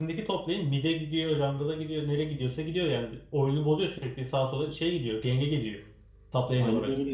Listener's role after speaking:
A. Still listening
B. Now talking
B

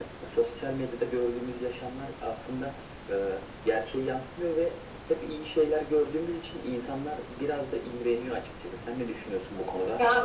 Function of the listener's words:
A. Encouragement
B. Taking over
B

